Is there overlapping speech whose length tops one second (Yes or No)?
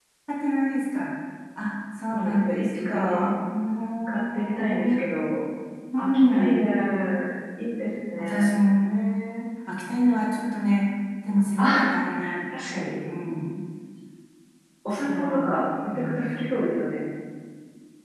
Yes